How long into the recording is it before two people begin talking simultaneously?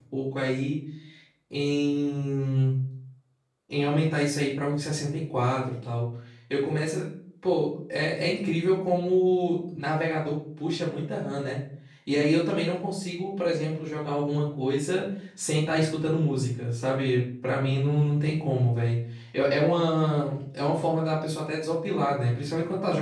none

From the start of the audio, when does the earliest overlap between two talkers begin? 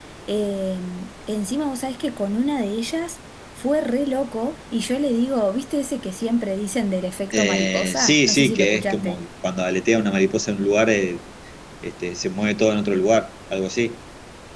7.3 s

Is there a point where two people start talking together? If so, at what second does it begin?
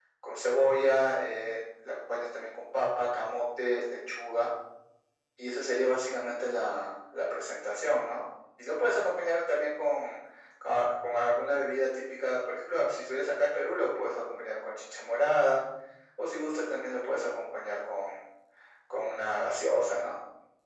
none

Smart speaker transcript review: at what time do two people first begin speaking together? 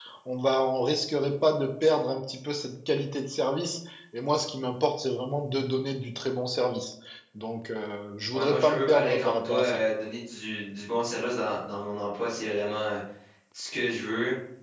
8.3 s

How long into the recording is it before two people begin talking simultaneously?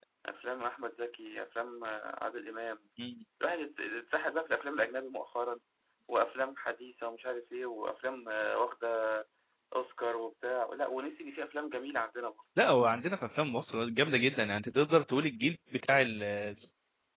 none

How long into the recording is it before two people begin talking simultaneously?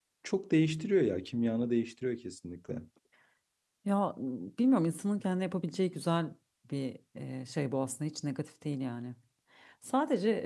none

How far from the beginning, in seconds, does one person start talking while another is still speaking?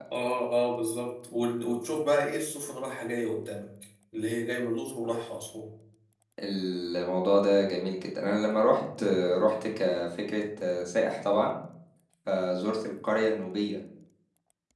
none

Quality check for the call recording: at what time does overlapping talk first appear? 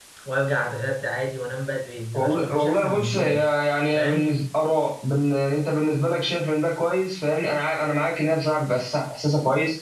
2.1 s

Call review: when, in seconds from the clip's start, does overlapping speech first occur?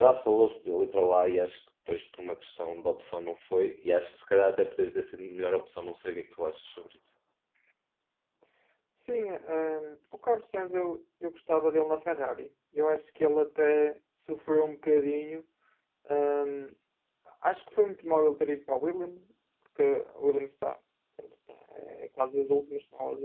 none

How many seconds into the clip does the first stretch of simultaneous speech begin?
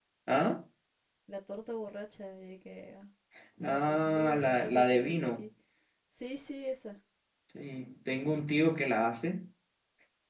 3.7 s

